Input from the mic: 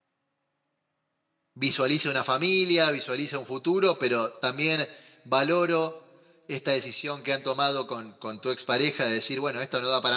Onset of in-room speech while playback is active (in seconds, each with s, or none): 1.5 s